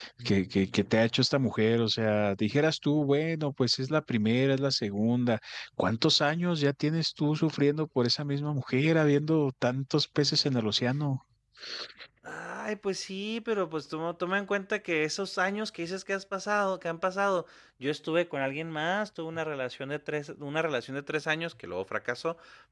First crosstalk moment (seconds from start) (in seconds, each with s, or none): none